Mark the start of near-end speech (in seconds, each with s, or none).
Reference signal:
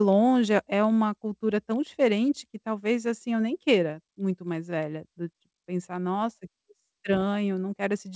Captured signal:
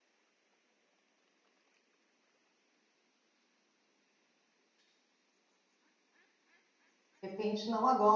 7.2 s